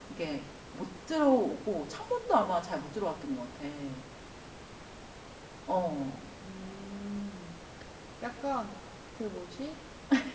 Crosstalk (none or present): none